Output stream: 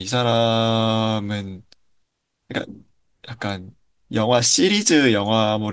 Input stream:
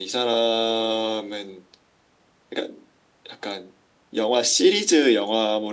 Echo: present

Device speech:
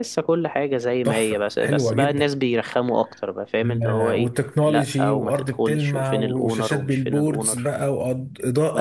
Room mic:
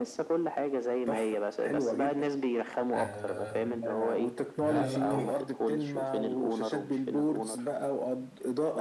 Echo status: present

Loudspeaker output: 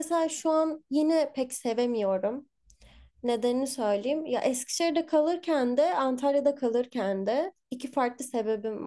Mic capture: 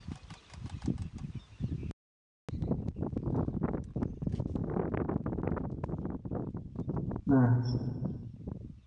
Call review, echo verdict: none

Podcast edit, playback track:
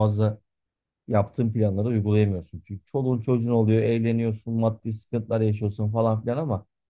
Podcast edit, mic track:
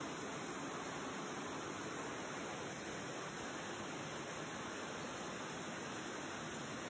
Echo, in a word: none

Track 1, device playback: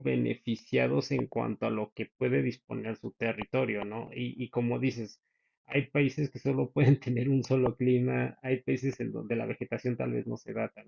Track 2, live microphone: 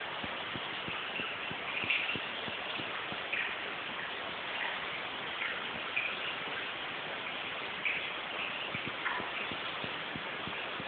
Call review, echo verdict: none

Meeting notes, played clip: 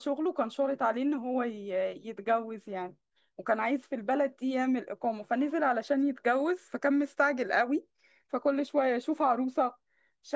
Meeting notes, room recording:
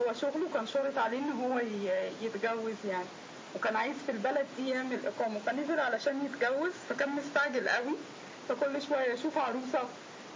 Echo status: present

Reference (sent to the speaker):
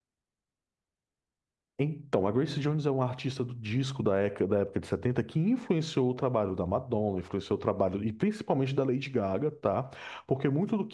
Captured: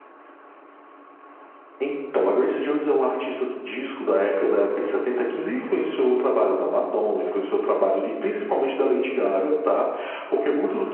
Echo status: present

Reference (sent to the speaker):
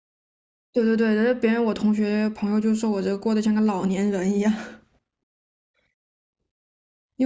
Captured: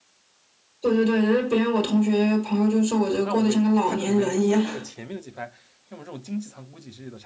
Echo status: present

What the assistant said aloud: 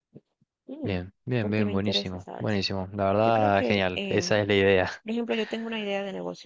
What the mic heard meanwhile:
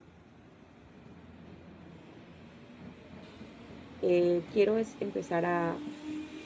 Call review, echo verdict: none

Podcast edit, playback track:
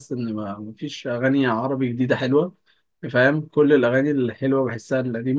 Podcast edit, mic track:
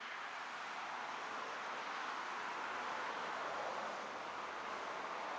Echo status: none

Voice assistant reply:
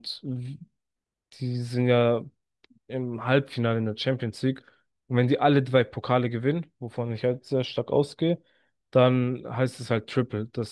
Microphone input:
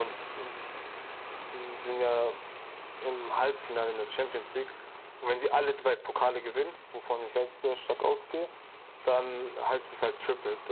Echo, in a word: present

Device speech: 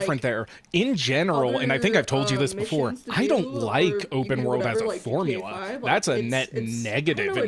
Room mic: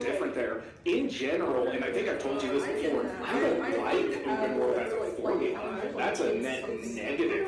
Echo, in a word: present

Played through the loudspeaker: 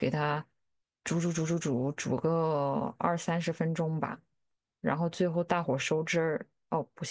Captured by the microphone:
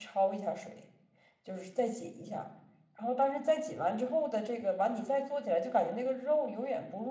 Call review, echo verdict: none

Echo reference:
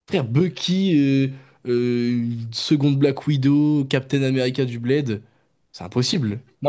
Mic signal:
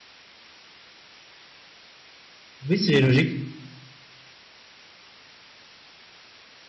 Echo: none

